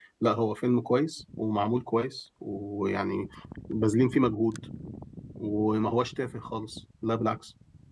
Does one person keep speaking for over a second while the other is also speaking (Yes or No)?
No